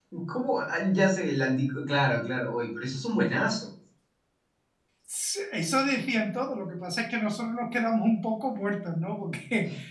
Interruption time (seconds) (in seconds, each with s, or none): none